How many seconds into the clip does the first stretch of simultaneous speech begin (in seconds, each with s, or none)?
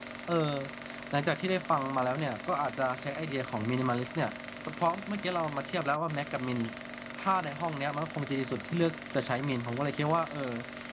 none